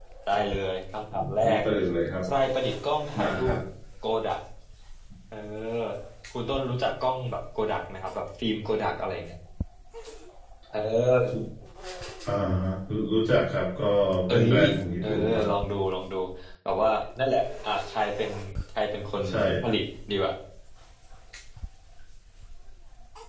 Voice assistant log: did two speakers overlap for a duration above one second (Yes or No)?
No